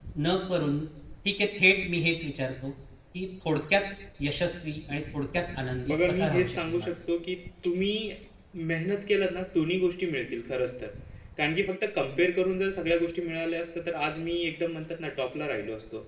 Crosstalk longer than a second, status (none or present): present